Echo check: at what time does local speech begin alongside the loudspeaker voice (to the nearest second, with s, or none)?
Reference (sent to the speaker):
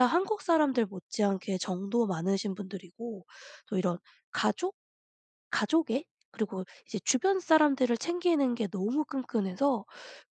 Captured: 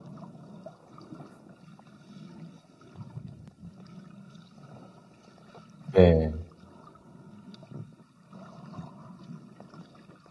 6 s